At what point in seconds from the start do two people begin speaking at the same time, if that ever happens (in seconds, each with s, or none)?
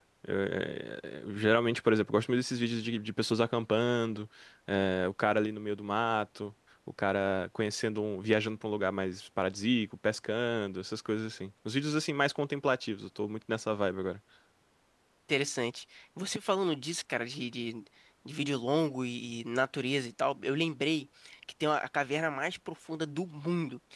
none